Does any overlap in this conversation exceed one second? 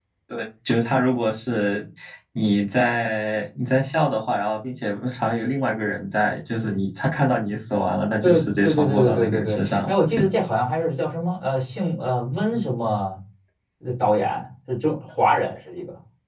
Yes, from 8.2 s

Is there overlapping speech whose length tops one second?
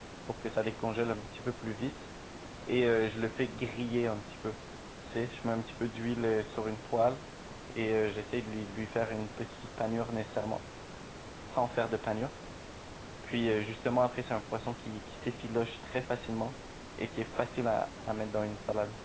No

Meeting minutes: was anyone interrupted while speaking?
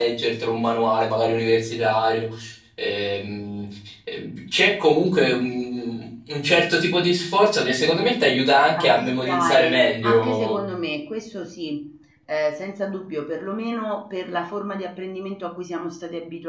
Yes, from 8.8 s

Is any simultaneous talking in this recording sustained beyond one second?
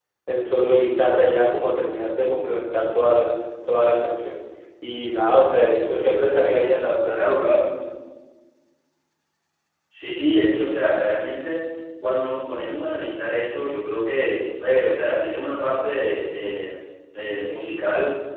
No

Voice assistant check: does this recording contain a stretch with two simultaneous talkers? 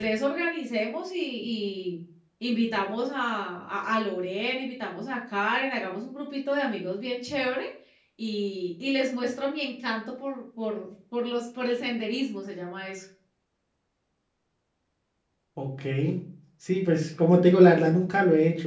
No

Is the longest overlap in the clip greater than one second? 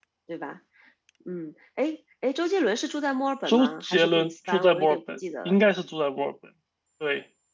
Yes, from 3.4 s

